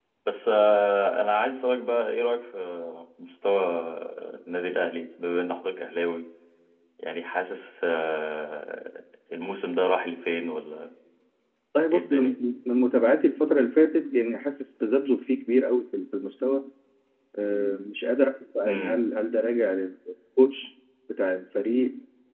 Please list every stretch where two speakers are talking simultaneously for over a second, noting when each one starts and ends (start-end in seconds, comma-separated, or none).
none